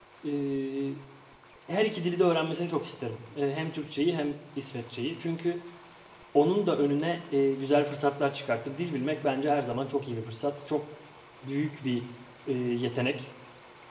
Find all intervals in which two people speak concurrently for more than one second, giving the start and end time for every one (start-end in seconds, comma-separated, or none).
none